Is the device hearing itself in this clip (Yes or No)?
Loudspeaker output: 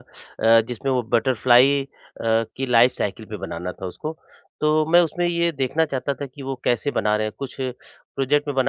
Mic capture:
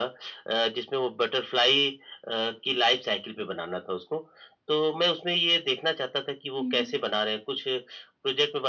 Yes